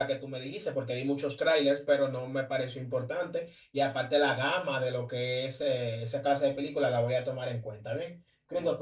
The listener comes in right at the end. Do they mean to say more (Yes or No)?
No